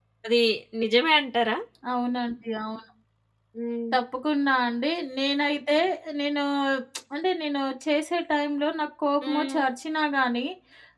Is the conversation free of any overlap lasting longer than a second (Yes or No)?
Yes